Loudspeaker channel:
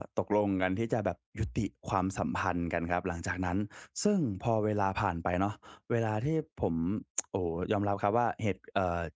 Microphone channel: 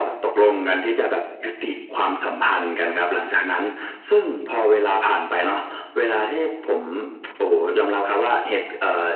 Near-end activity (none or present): none